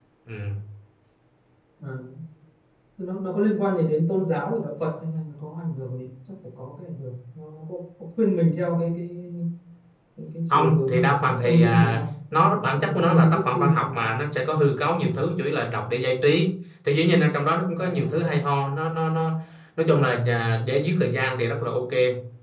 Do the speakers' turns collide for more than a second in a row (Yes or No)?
Yes